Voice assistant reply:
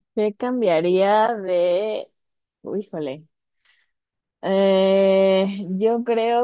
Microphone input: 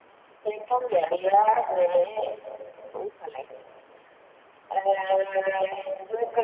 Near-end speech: none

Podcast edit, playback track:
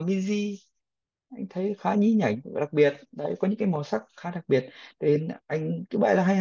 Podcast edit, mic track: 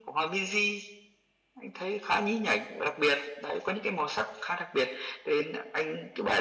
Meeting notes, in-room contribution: none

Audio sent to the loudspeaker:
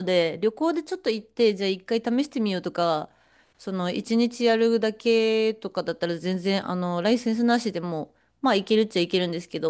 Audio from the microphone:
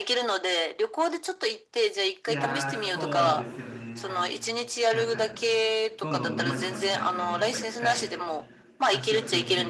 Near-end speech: present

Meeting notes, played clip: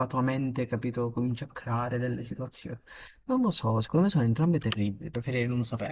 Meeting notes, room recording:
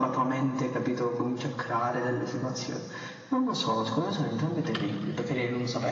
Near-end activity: none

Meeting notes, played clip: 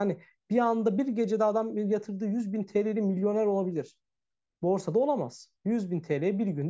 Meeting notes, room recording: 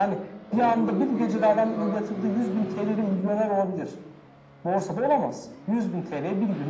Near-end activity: present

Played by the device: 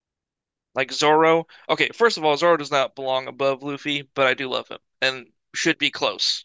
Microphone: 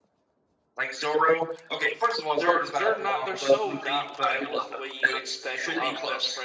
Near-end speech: present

